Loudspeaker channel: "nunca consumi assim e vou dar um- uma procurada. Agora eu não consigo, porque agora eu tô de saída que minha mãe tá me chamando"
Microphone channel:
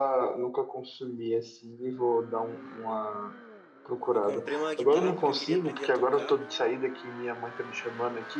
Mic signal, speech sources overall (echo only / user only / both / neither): both